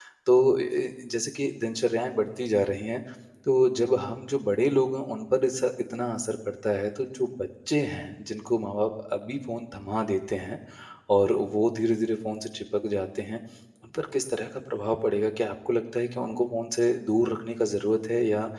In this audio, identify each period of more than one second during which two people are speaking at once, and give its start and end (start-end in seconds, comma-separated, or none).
none